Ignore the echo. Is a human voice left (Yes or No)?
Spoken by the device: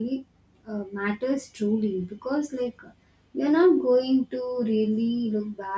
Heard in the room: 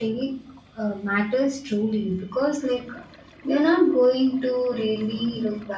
No